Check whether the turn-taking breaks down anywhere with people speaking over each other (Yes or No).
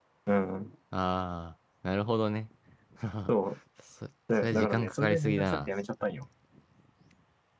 Yes